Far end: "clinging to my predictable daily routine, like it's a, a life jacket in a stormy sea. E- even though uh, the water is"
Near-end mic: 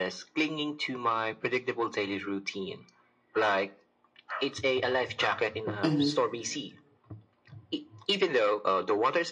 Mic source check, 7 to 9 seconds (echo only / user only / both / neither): echo only